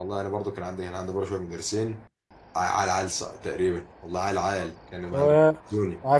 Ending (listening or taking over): taking over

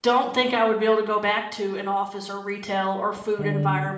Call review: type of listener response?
listening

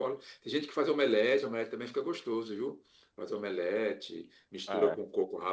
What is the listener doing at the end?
listening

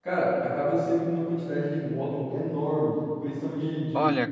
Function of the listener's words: listening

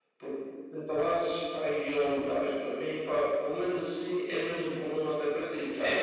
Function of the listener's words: taking over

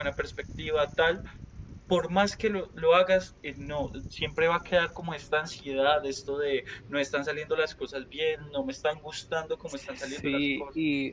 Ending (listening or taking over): taking over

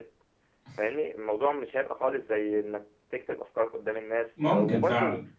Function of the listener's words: listening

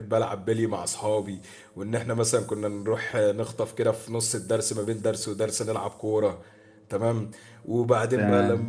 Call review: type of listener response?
listening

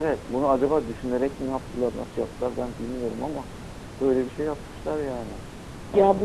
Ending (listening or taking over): taking over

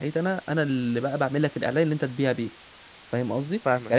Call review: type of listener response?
listening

